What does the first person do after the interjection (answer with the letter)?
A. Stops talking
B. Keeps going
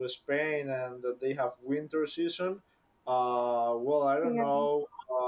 B